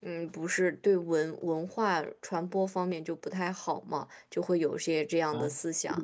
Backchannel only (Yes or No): No